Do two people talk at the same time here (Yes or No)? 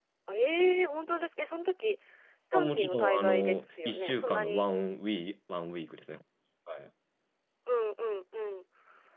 Yes